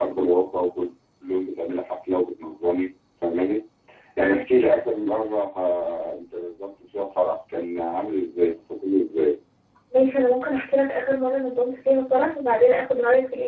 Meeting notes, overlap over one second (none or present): none